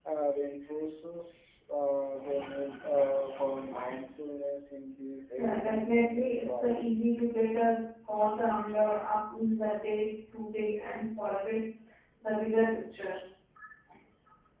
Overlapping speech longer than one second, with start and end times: 5.4-6.8

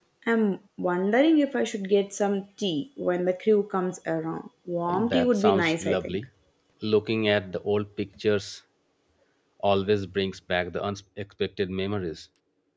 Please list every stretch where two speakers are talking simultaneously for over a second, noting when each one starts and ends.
4.9-6.2

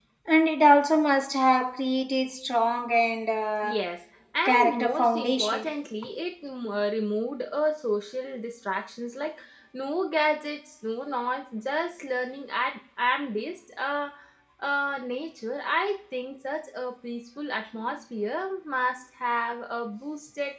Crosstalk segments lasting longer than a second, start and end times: 4.4-5.7

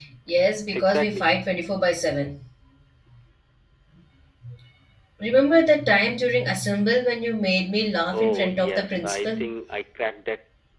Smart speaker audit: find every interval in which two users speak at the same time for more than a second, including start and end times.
8.1-9.4

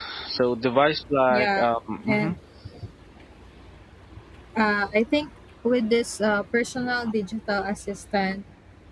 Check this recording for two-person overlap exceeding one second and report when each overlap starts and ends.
none

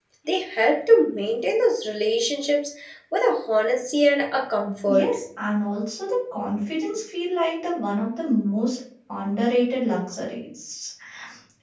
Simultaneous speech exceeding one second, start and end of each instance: none

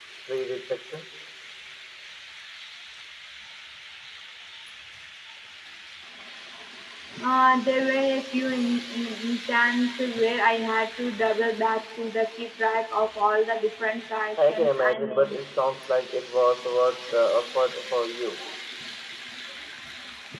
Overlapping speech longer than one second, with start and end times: 14.4-15.6

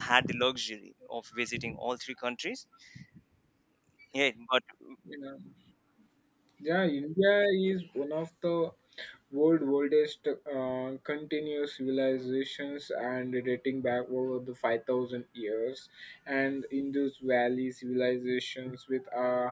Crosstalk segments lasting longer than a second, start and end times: none

